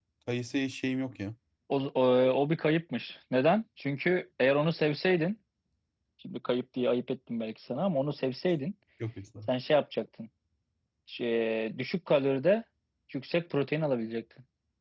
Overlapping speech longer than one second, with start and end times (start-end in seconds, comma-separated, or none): none